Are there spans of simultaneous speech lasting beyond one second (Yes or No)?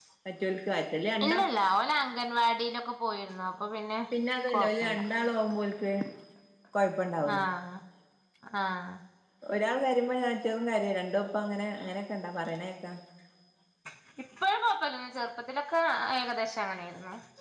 No